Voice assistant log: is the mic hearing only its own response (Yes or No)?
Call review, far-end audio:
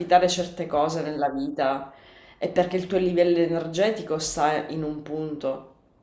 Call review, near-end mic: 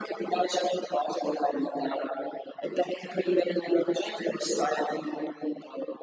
Yes